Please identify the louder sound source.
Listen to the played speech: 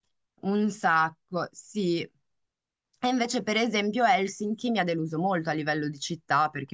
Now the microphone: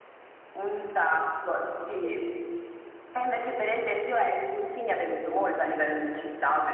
echo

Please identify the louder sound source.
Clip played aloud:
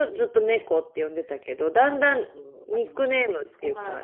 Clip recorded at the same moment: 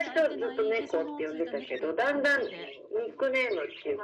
echo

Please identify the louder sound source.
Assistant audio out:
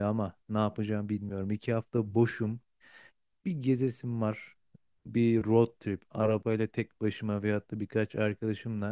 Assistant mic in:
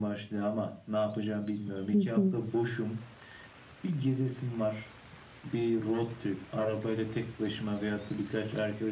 user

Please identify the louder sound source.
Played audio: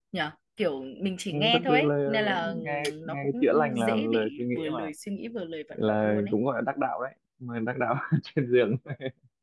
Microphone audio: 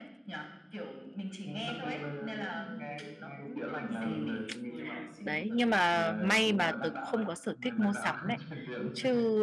user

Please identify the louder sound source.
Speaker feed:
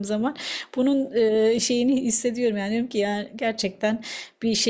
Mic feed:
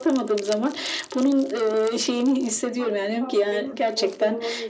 echo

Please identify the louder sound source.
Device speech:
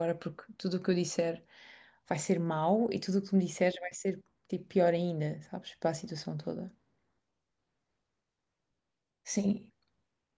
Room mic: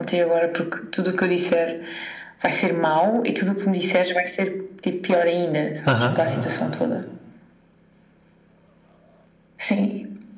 user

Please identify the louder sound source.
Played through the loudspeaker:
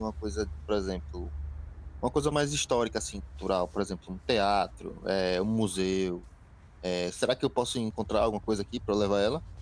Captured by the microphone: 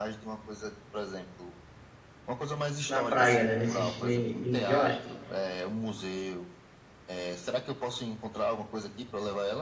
user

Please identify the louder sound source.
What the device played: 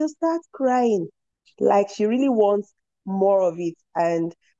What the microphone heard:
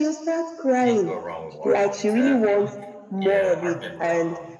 echo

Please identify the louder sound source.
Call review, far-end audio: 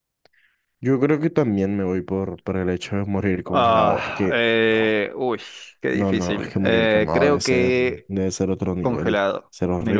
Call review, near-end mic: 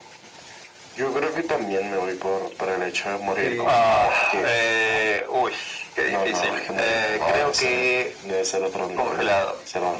echo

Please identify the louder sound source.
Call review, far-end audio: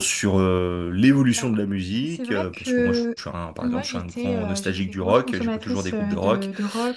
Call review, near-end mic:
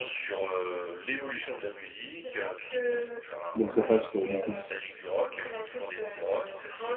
user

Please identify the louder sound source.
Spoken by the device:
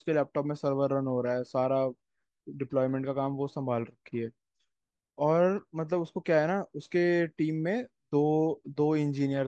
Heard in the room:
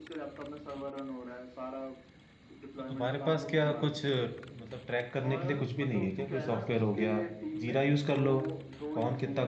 user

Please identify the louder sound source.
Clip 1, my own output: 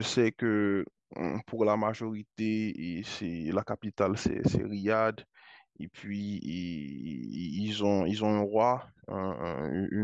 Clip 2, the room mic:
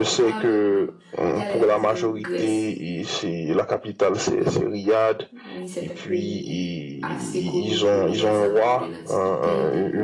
echo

